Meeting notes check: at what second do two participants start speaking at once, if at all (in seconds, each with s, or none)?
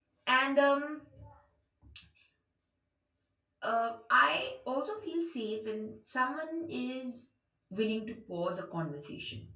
none